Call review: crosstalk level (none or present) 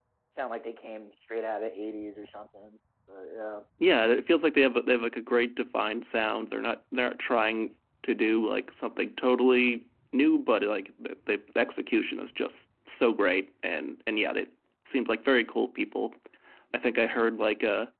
none